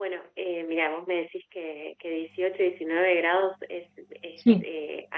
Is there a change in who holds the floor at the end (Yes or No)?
No